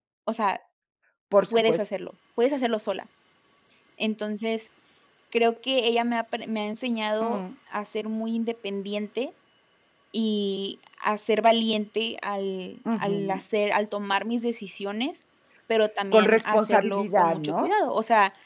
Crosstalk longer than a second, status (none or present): present